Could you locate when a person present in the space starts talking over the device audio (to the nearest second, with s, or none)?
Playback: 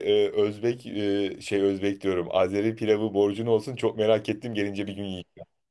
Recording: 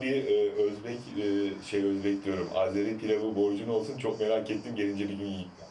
none